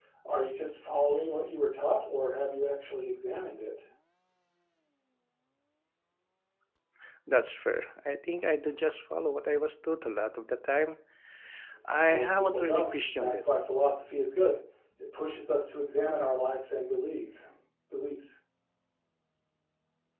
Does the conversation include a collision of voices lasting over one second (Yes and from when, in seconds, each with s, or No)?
Yes, from 12.1 s